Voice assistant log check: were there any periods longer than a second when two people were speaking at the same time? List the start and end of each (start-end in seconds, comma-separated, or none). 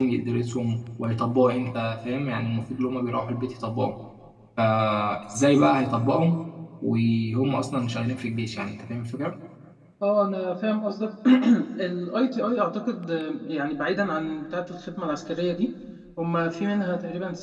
none